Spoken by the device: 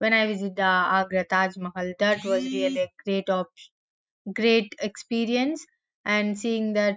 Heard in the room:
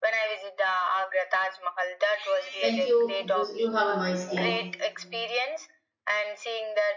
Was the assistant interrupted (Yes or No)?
Yes